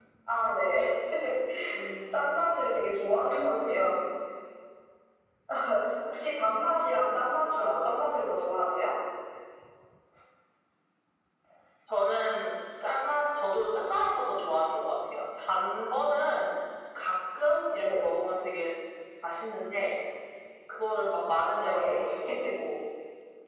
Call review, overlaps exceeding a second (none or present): present